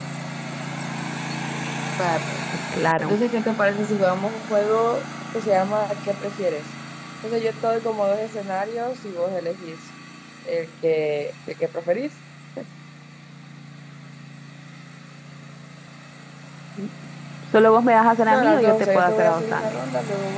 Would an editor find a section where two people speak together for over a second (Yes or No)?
Yes